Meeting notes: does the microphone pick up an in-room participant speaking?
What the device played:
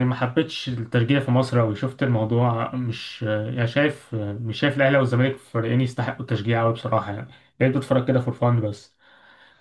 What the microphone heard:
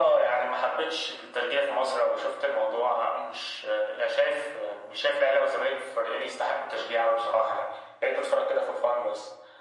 No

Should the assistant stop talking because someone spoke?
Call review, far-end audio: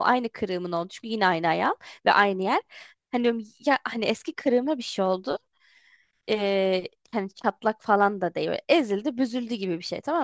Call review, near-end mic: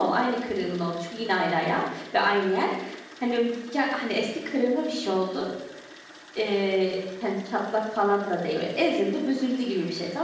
No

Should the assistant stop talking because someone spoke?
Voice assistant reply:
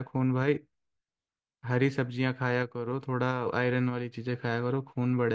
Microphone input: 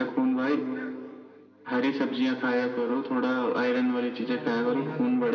Yes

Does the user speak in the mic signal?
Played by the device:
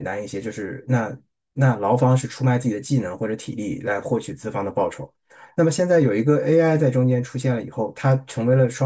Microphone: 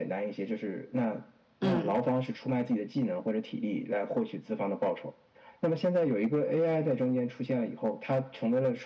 Yes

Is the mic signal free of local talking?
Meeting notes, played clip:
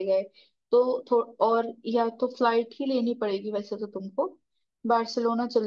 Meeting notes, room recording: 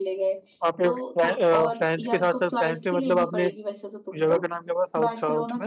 No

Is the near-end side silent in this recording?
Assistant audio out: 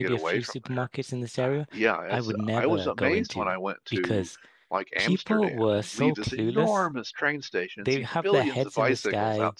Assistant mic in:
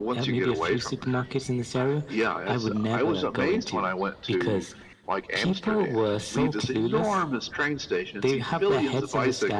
Yes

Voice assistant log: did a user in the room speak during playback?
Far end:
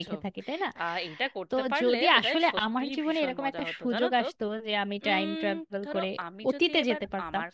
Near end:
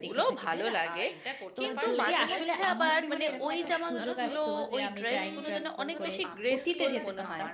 Yes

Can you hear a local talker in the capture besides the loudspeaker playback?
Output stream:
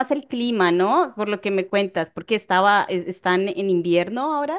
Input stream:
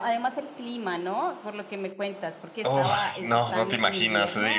Yes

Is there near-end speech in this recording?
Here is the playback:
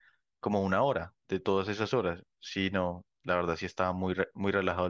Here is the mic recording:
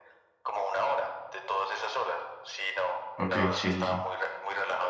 Yes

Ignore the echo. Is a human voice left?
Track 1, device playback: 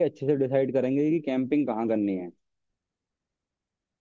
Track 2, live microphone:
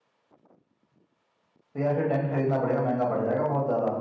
Yes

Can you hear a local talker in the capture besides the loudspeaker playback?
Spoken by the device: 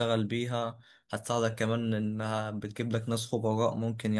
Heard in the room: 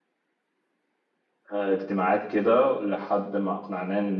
Yes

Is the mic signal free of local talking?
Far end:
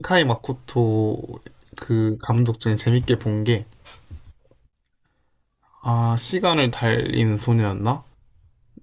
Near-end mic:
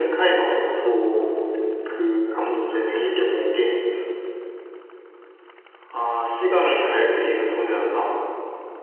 Yes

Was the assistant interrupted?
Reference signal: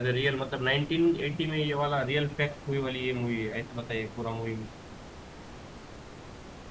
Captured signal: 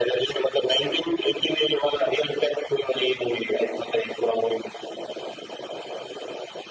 No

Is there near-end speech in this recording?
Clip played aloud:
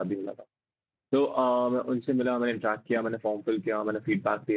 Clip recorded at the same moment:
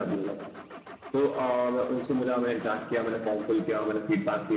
No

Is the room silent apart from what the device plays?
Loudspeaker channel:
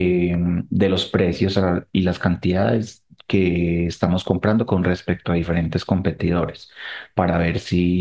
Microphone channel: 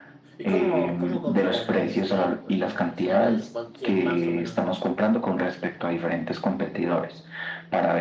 No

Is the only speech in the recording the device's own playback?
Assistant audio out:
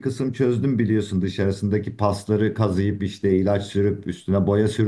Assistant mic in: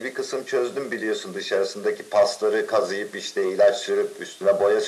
Yes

